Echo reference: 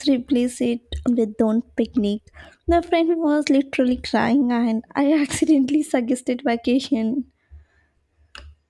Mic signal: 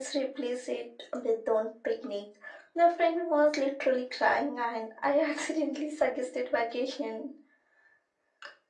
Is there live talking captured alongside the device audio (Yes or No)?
No